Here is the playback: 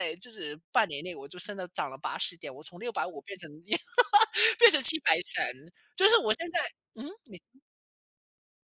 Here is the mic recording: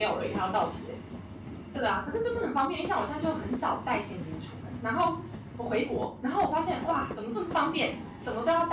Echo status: none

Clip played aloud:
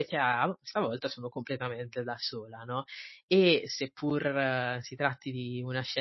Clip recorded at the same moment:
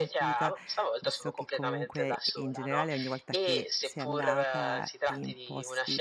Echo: present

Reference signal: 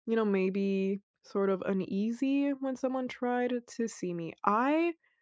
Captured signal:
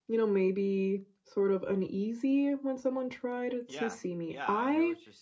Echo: present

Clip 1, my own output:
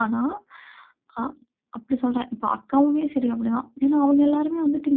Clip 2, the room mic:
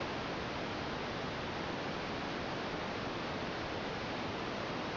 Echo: none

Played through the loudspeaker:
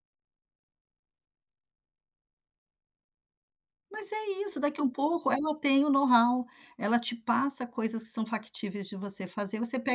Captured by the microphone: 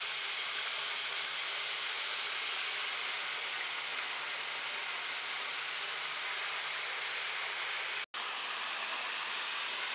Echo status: none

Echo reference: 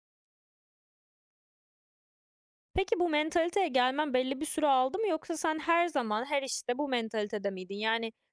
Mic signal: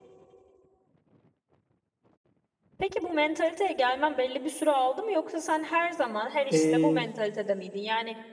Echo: present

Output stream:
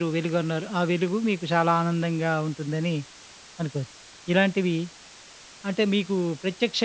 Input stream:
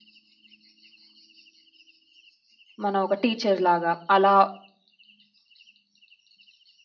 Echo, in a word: none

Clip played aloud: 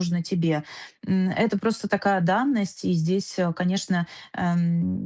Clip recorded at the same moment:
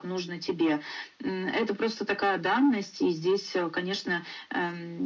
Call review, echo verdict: present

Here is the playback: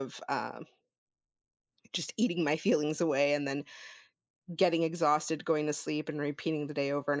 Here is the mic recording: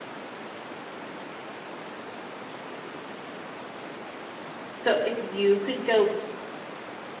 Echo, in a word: none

